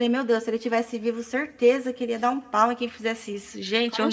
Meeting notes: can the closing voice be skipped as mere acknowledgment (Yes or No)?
No